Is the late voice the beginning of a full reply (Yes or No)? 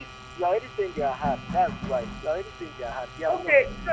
Yes